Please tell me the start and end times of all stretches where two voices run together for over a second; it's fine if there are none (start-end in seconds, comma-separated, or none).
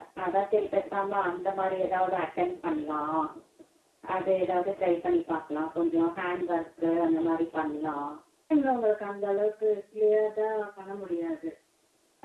none